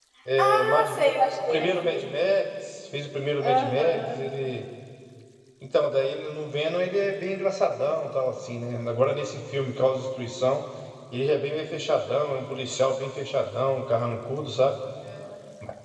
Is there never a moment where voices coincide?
No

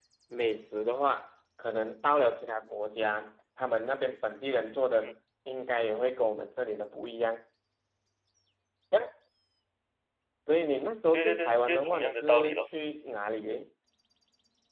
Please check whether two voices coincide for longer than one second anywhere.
Yes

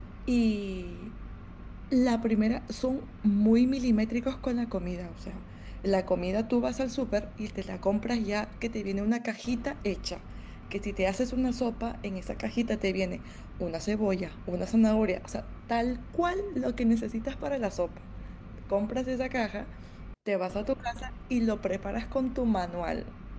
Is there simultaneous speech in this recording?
No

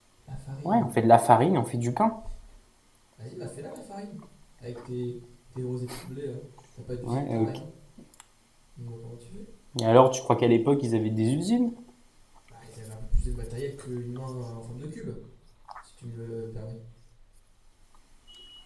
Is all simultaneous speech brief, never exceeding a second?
Yes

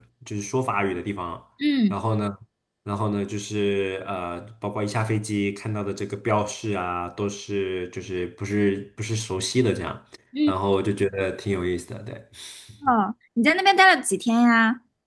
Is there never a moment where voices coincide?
Yes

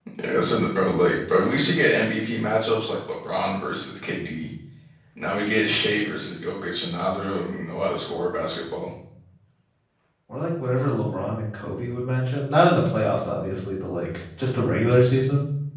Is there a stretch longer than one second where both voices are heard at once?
No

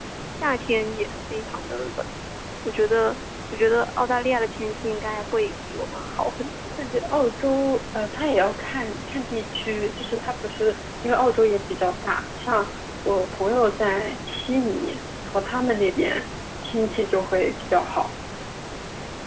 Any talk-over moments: No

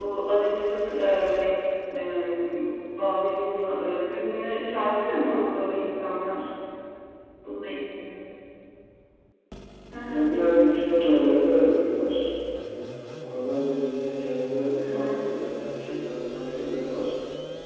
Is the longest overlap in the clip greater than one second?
No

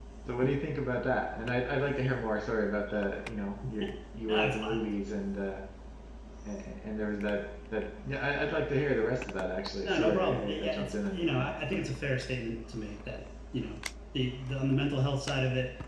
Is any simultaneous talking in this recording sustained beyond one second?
Yes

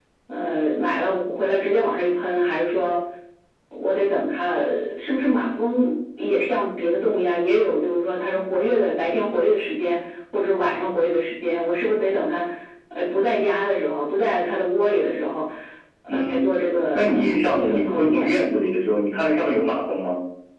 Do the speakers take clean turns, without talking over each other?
No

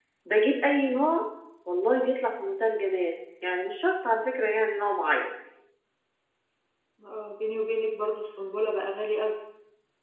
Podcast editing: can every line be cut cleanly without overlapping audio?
Yes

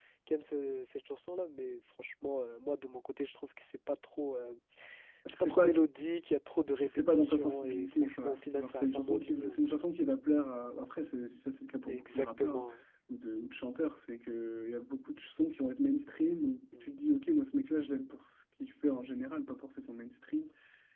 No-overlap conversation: No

